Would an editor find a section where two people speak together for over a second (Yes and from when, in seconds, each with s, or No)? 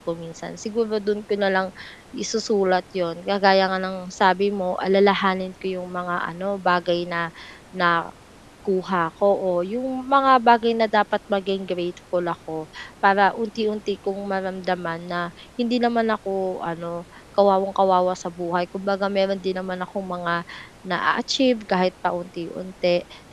No